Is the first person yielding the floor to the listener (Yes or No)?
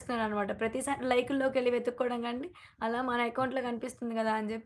No